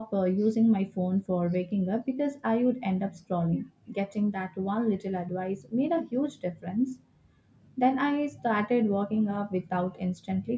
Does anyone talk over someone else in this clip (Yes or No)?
No